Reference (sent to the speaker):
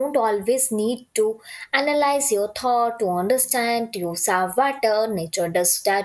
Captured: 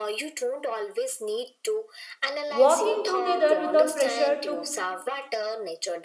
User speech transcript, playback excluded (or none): Walking together without pressure to